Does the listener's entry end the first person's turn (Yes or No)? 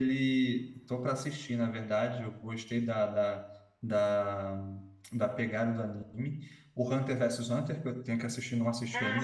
No